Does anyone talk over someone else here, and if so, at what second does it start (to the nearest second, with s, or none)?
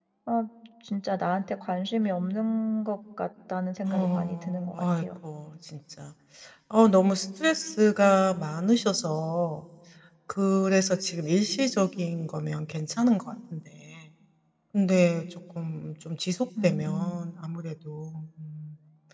4 s